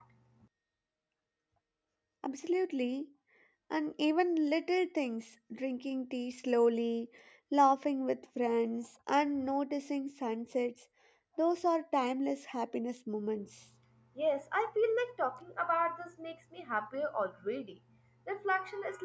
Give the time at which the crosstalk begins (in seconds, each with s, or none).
none